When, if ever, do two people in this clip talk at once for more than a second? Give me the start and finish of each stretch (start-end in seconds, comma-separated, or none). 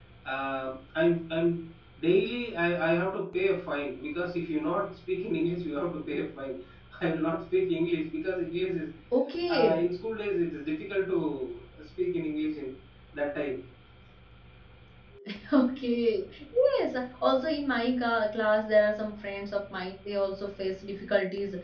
none